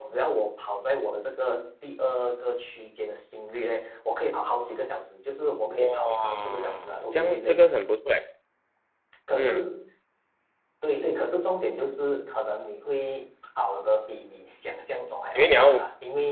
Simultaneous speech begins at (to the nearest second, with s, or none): 6 s